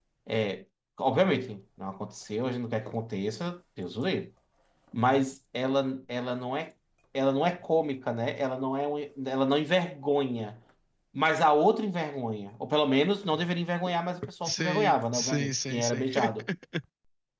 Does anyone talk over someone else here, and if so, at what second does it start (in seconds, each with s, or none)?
14.4 s